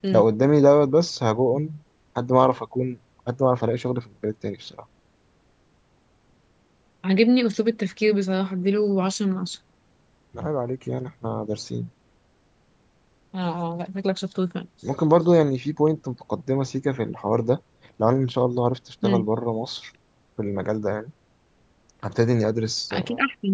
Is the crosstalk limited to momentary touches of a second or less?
Yes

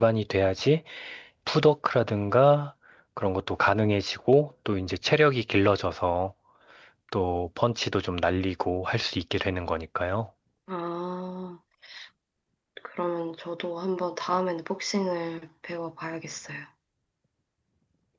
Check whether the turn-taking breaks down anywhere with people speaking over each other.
No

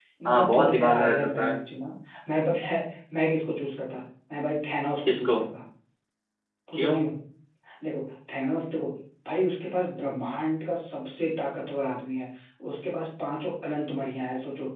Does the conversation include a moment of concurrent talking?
Yes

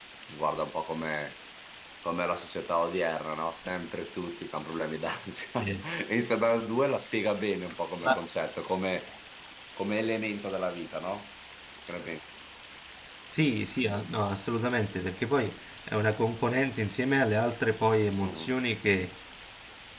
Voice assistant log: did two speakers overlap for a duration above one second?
No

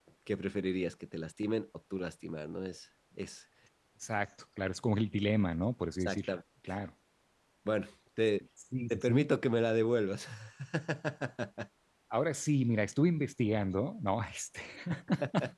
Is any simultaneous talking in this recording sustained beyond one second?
No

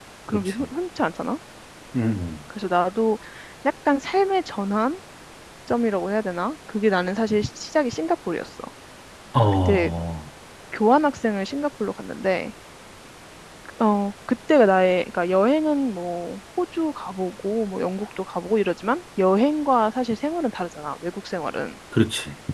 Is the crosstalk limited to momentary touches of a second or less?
Yes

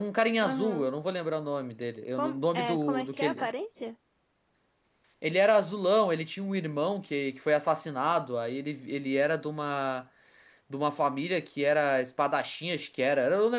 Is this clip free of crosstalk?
No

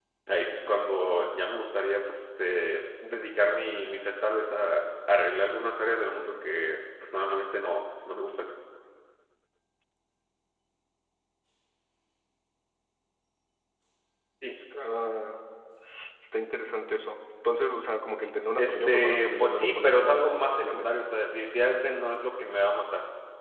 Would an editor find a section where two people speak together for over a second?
Yes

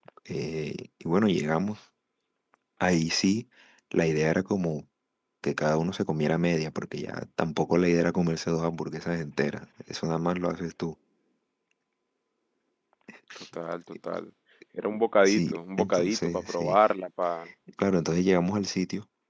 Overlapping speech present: Yes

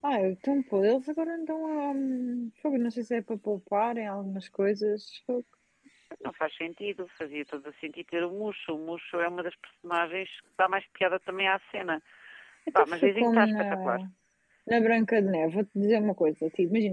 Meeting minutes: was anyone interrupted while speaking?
Yes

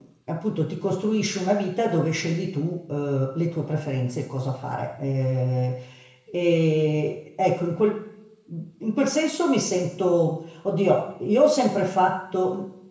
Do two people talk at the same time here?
No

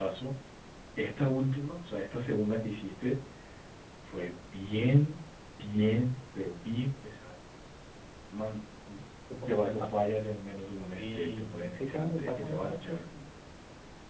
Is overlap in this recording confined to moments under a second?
No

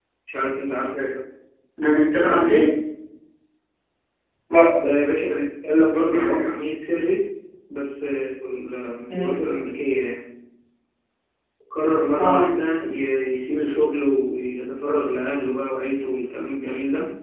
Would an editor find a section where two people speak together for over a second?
No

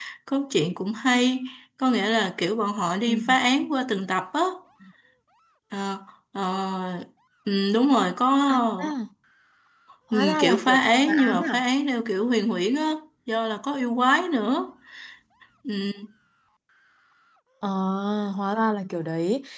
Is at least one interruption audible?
Yes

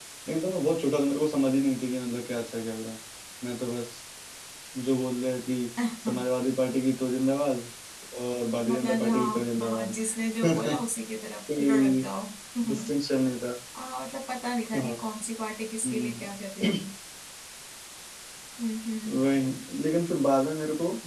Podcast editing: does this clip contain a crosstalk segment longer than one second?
Yes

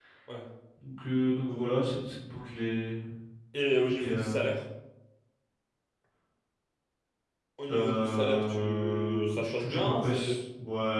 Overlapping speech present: Yes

